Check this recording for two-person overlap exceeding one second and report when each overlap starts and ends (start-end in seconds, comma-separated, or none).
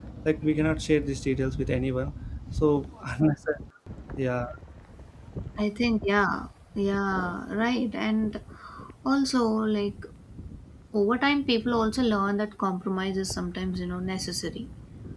none